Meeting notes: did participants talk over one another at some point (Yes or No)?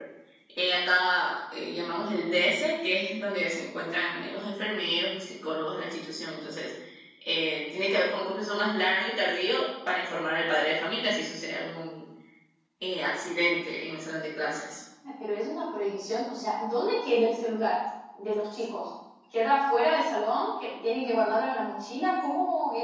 No